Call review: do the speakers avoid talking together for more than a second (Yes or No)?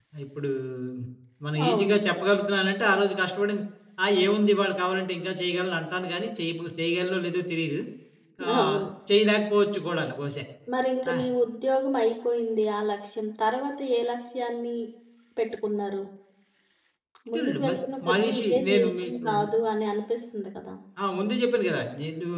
No